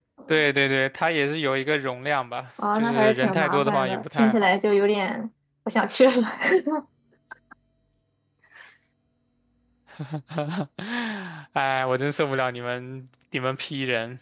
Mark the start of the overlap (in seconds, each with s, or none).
2.6 s